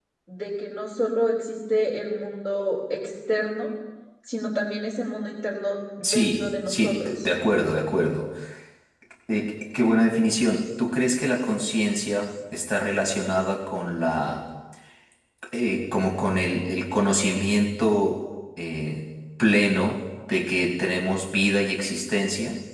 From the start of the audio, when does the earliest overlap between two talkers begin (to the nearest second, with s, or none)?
6 s